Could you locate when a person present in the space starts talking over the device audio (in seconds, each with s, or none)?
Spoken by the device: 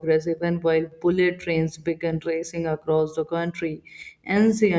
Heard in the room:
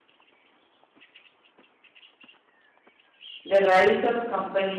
3.5 s